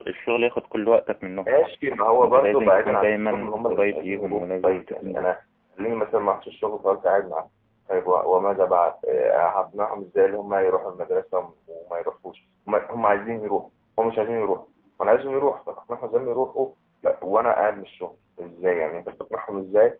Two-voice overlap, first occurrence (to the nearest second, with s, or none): 2 s